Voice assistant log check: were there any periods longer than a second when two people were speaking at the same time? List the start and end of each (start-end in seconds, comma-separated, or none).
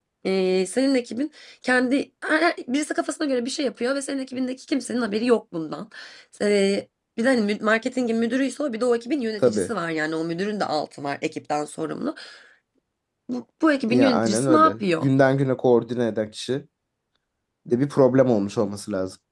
13.9-15.1